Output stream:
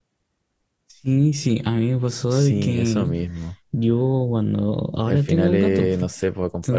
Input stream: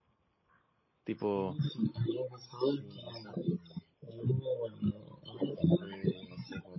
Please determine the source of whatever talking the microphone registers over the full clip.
both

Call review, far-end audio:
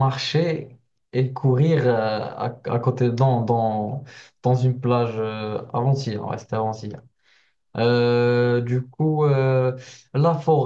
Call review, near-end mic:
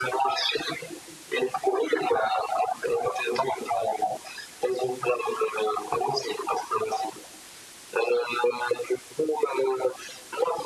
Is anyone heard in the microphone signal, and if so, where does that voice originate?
echo only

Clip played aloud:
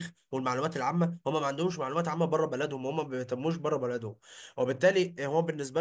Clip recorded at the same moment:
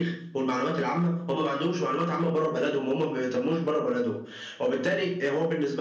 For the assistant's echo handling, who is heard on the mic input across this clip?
echo only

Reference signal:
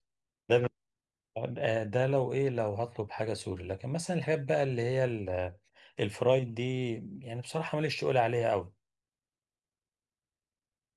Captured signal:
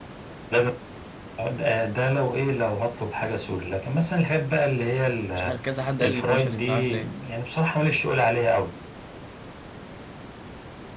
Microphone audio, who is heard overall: both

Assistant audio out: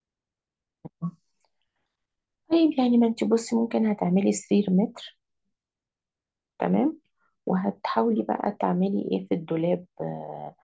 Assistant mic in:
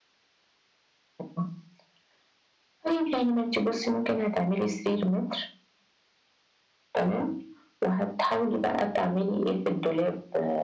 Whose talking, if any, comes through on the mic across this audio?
echo only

